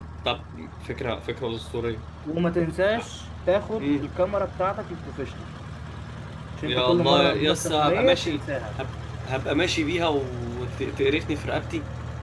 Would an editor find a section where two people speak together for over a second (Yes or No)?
Yes